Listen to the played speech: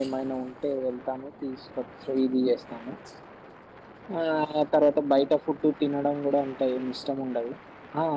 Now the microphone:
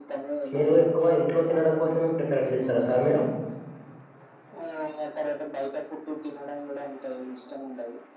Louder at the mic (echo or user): user